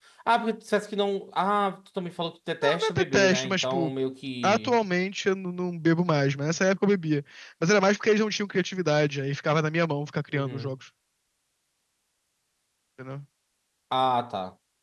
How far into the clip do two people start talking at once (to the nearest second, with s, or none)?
3 s